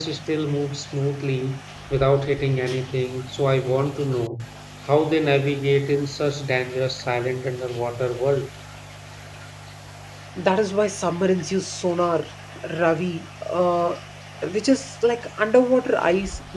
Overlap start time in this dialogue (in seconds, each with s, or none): none